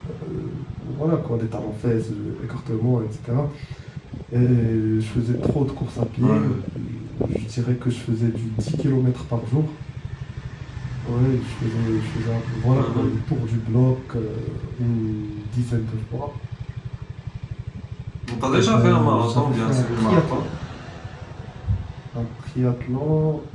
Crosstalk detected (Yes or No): Yes